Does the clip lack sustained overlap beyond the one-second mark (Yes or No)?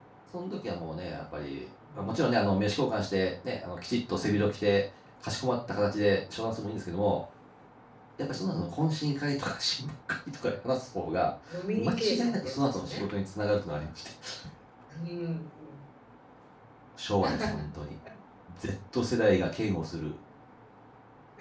No